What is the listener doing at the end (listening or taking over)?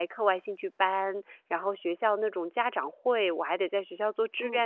listening